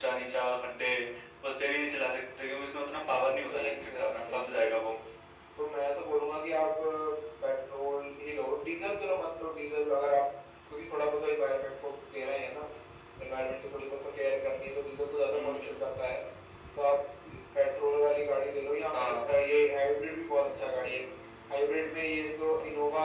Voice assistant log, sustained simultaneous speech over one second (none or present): present